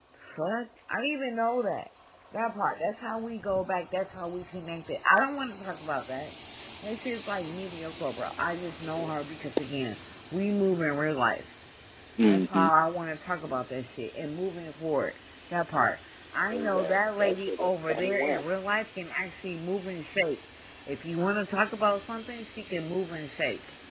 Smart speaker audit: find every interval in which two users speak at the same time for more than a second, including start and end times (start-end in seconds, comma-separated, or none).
16.5-18.4